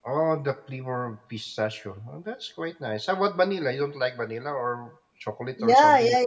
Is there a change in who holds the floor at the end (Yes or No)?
Yes